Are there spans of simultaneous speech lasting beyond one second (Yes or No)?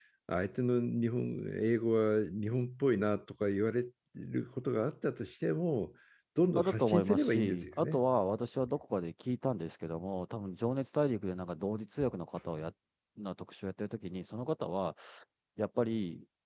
Yes